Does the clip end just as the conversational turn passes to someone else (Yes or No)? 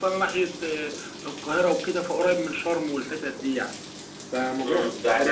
Yes